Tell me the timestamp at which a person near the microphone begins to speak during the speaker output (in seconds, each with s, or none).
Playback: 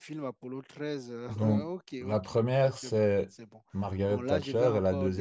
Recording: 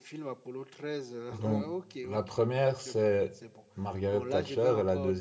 none